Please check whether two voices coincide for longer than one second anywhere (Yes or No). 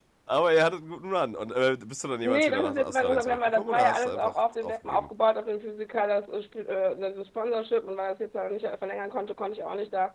Yes